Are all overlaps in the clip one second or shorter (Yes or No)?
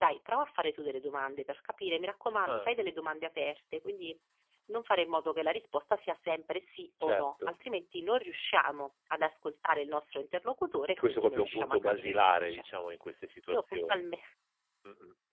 No